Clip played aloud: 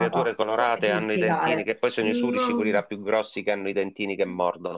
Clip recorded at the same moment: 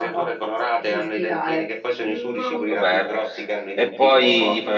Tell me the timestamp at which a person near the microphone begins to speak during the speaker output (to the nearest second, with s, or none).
2 s